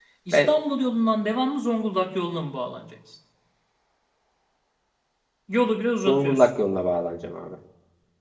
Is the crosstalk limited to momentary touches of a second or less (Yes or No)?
Yes